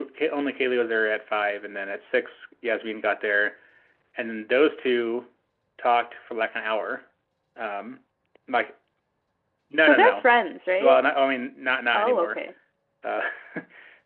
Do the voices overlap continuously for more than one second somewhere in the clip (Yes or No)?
No